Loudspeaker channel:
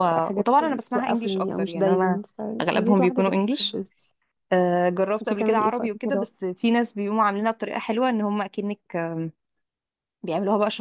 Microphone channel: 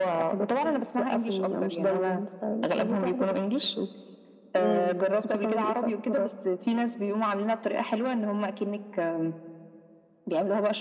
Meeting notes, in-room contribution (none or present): present